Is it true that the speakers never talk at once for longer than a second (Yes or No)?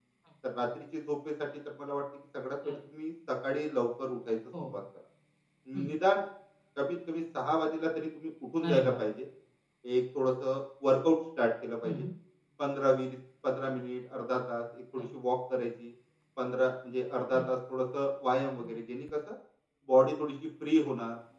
Yes